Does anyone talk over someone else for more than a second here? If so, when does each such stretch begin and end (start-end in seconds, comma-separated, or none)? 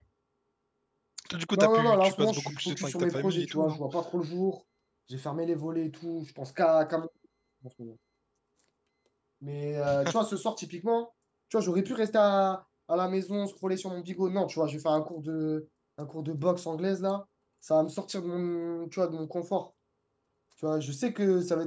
1.5-3.8